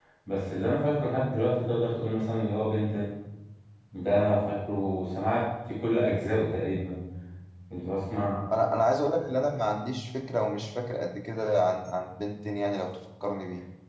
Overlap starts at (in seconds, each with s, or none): none